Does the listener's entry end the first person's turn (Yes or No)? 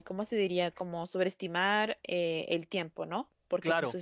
No